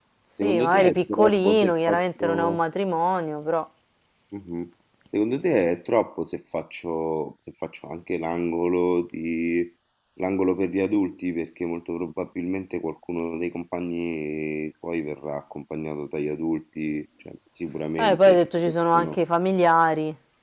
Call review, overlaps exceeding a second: present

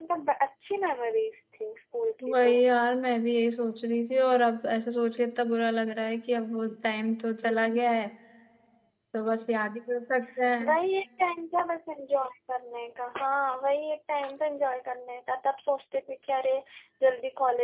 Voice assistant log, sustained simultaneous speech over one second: none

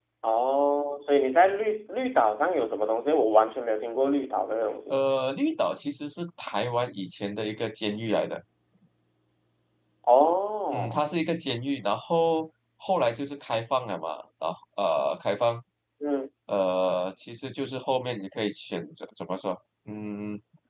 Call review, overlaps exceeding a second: none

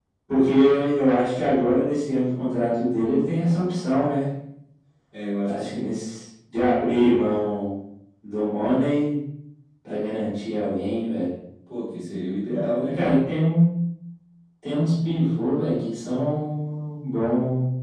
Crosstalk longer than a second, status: none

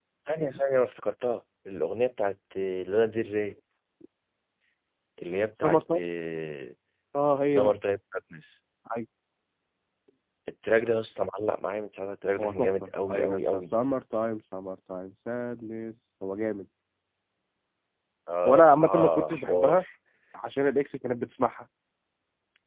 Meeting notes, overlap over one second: present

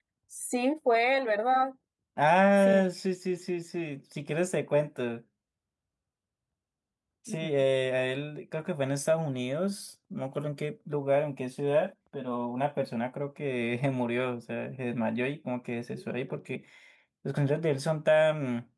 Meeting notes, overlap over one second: none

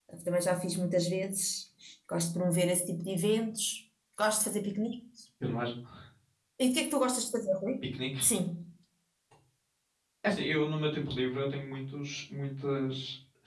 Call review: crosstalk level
none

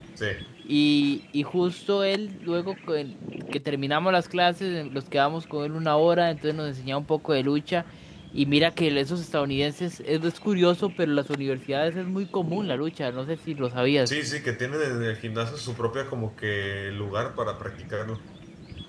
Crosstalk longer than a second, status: none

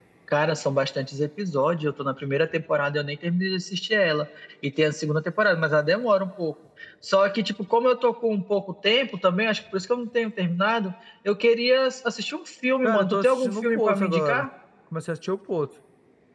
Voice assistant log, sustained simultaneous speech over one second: present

